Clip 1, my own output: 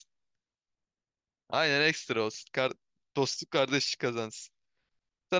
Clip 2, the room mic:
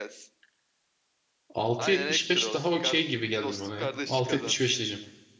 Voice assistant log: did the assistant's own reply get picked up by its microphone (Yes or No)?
Yes